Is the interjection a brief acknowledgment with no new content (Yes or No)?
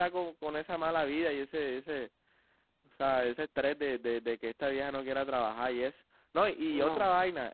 Yes